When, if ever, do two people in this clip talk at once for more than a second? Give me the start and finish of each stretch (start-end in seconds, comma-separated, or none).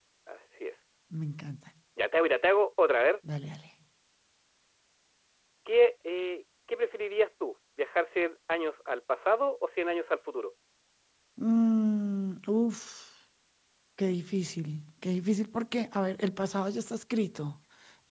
none